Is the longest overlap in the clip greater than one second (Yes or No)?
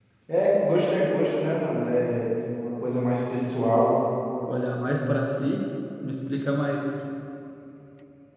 No